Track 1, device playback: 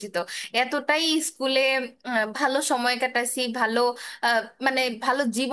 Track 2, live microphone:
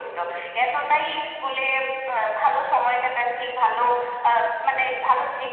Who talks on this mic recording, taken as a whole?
echo only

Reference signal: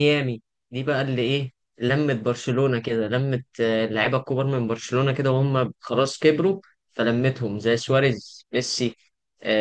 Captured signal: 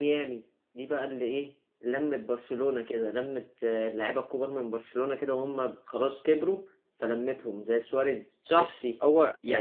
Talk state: both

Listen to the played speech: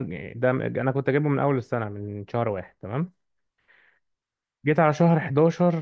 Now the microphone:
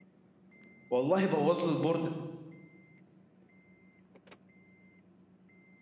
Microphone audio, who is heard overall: user only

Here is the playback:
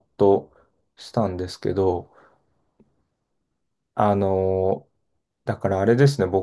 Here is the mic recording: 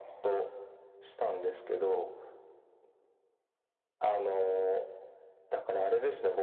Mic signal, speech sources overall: echo only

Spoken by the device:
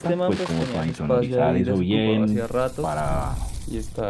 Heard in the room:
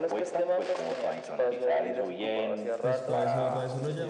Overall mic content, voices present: both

